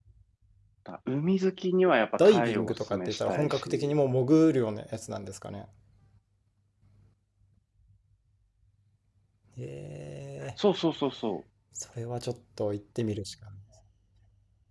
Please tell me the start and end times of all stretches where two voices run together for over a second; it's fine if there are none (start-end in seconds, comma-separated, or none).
2.2-4.0